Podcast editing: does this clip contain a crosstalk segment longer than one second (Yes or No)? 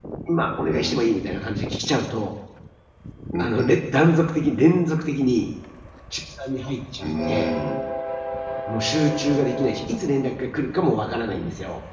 No